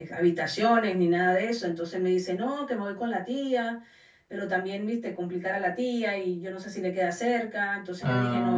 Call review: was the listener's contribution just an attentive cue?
Yes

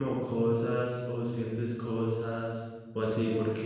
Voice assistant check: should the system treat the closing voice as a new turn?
No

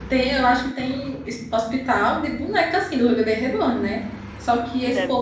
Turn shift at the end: No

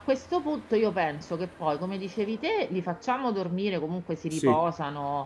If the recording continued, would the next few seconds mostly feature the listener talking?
No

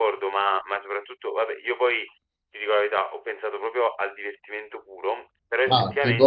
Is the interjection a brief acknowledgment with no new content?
Yes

